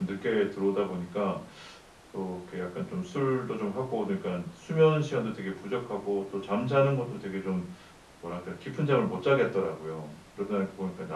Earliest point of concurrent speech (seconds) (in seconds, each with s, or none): none